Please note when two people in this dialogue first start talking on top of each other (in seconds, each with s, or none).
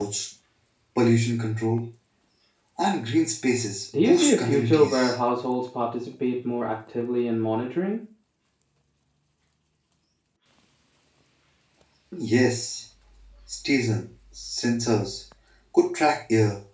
3.9 s